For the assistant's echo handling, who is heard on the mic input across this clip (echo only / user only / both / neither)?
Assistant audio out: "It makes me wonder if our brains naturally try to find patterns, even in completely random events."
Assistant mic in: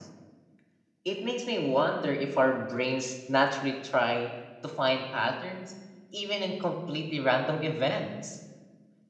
echo only